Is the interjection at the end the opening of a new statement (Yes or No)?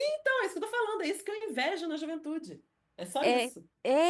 Yes